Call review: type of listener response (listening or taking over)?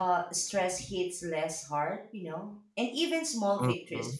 listening